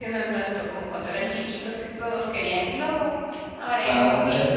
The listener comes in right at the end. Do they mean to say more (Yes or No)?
Yes